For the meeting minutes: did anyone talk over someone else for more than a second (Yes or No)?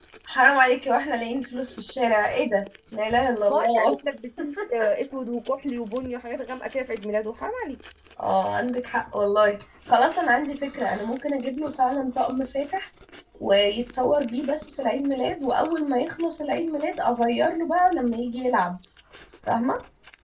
No